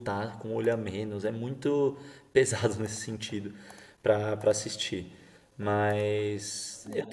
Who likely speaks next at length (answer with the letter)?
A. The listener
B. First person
A